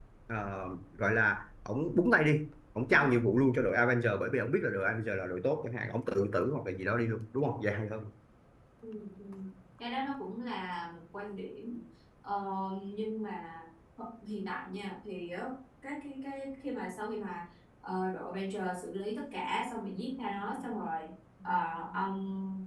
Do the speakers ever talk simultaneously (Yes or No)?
No